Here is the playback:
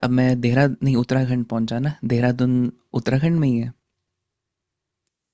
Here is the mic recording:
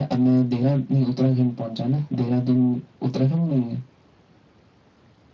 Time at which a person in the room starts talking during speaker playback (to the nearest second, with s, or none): none